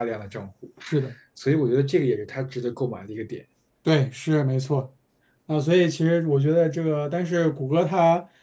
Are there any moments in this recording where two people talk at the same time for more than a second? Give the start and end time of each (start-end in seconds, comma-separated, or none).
none